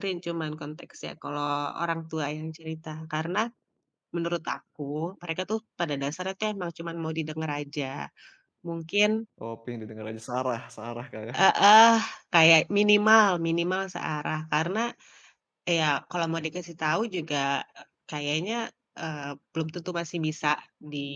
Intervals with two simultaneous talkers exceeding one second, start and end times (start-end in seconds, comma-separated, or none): none